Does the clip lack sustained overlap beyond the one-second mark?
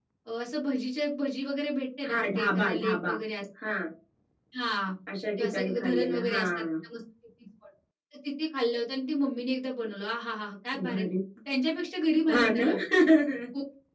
No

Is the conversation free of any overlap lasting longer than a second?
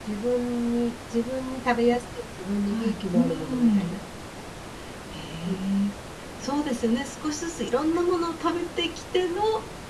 No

